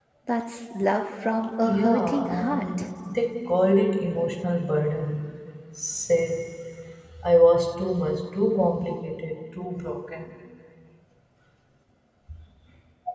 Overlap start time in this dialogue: 1.6 s

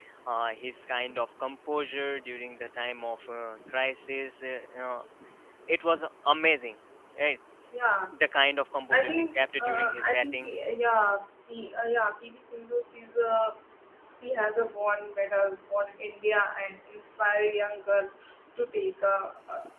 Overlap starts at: 8.9 s

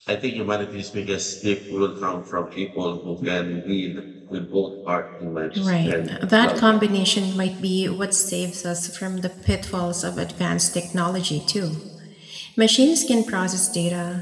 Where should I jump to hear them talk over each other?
5.5 s

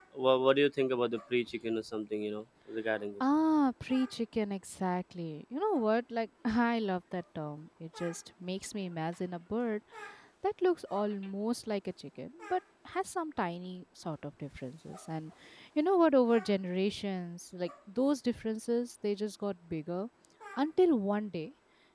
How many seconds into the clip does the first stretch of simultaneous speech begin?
none

